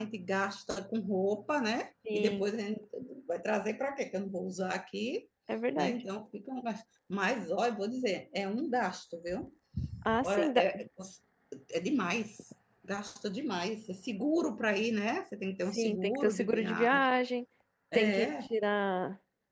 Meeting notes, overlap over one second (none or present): present